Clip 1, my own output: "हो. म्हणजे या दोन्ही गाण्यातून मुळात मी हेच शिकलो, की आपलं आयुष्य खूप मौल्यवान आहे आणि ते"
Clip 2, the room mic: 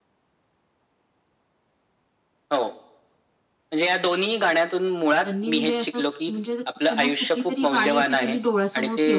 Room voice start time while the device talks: 5 s

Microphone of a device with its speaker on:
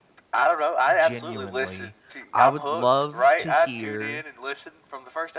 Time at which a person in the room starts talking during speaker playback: 1 s

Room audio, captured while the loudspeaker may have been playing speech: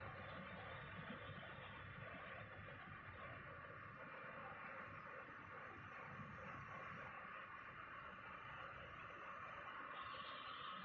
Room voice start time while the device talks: none

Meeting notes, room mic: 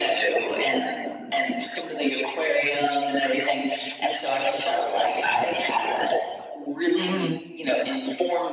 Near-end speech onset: 7 s

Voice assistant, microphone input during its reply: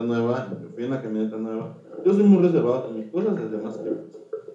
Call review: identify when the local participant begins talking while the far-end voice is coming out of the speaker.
none

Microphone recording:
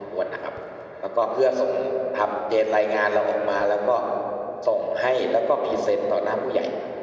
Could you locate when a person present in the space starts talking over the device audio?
none

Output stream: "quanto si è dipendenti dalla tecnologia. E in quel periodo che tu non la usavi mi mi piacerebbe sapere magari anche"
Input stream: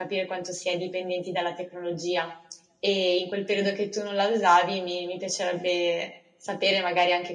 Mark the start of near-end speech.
none

